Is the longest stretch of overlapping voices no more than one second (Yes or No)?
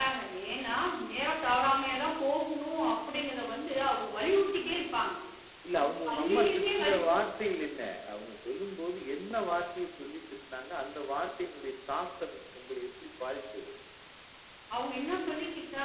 No